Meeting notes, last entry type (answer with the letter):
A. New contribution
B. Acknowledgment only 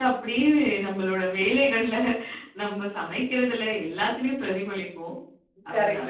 A